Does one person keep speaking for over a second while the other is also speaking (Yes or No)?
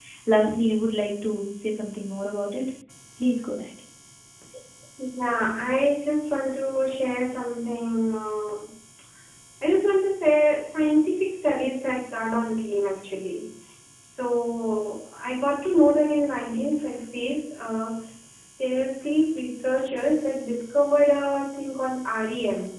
No